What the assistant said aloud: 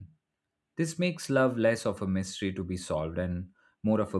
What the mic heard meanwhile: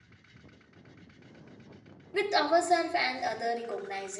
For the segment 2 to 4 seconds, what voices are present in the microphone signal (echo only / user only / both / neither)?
user only